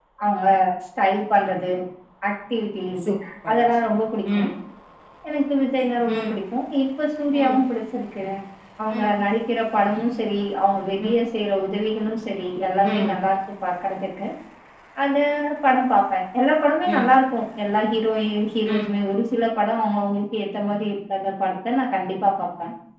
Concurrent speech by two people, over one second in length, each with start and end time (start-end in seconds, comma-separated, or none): none